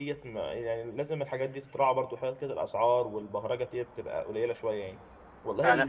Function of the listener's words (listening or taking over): taking over